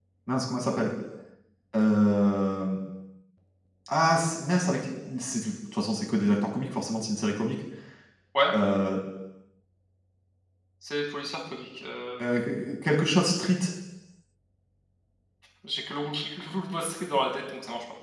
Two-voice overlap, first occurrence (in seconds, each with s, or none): none